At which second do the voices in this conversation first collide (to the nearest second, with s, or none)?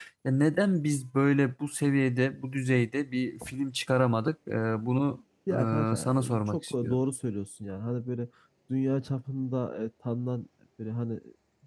5 s